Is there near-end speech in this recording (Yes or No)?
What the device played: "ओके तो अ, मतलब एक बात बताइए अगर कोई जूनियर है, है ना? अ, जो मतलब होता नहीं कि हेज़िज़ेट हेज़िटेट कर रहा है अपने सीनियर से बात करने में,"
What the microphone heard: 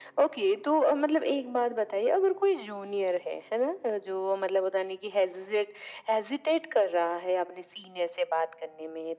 No